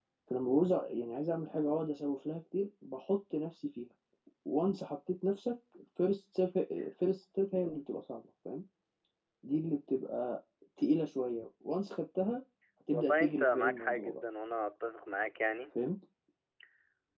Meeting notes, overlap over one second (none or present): present